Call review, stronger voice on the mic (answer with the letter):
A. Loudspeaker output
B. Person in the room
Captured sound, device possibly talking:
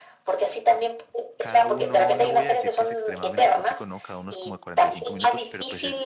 A